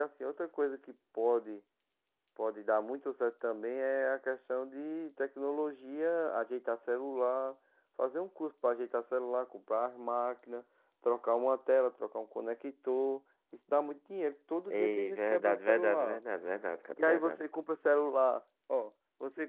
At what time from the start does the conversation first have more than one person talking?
15 s

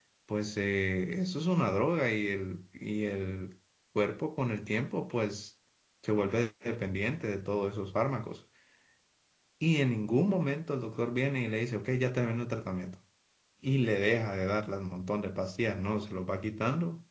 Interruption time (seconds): none

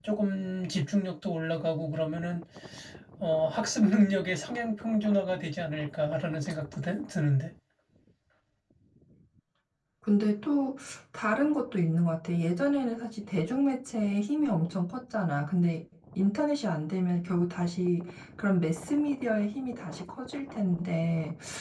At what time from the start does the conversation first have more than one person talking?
none

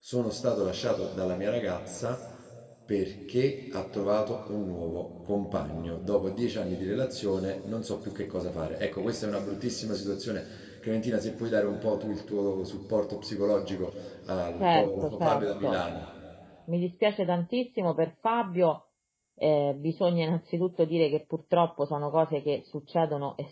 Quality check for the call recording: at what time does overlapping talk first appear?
15 s

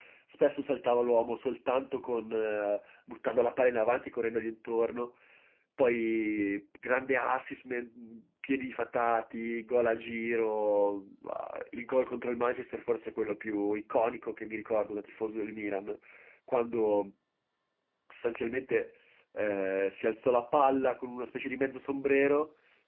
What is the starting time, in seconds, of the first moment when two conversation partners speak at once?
none

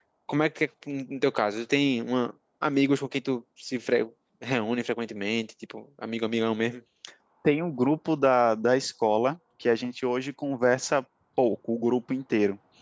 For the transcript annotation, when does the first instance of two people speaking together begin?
none

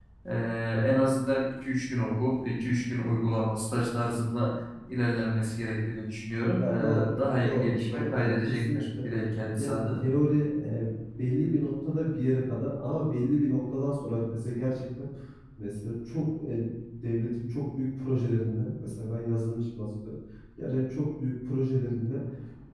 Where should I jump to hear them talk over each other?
7 s

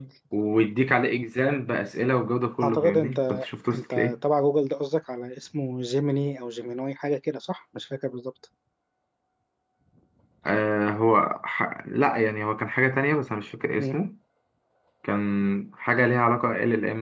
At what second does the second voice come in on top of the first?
3 s

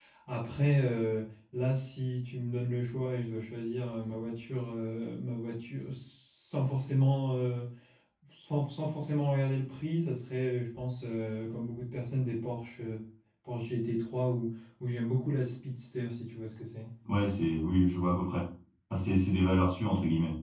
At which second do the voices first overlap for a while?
none

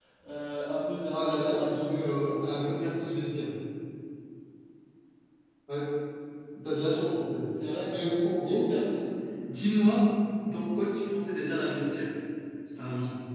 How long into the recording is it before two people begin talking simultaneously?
1 s

